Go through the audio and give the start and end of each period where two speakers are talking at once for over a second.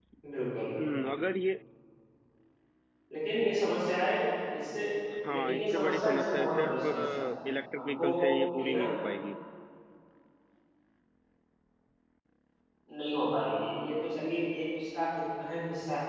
5.3-7.3

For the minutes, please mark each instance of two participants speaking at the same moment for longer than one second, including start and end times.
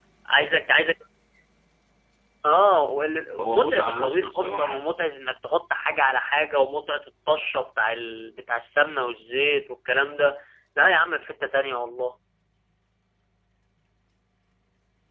3.4-4.8

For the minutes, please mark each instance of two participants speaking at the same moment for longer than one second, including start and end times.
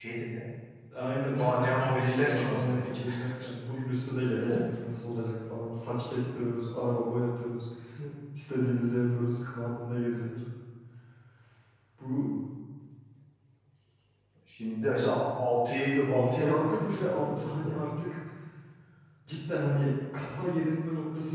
1.4-3.0, 16.1-17.8

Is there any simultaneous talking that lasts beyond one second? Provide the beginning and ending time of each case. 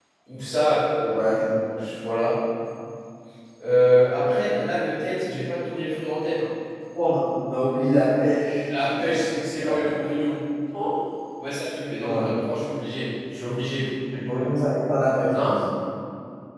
none

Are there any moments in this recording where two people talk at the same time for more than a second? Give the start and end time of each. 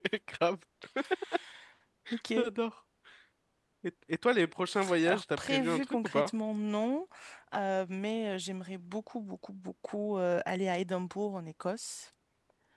5.1-6.3

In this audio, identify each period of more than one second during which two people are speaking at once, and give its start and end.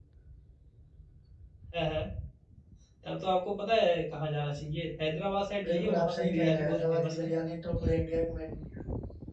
5.6-7.3

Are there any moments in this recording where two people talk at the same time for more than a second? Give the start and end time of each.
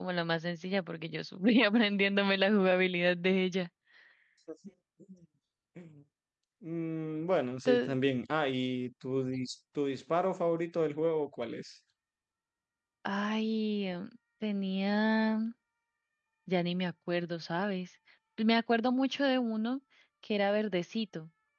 none

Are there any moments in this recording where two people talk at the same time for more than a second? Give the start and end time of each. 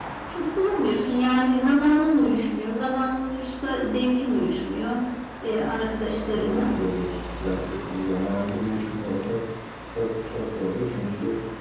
none

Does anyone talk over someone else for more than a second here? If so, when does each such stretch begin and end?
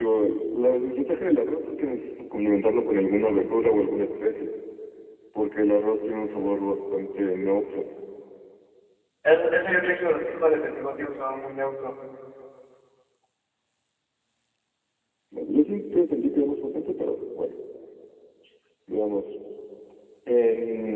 none

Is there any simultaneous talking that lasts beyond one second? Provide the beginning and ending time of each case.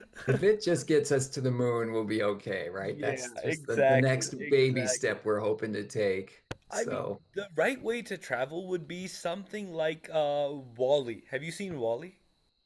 2.8-5.2

